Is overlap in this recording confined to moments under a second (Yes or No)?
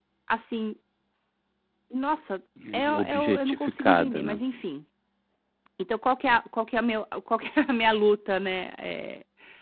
No